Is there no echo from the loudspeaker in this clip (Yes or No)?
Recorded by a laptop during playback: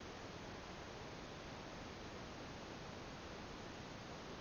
Yes